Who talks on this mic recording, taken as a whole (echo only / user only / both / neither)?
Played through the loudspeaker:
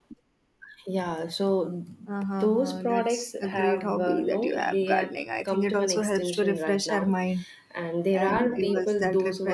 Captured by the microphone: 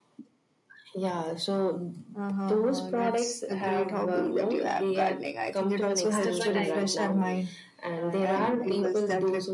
both